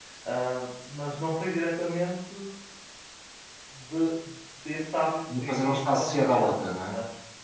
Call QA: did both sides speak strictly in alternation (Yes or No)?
No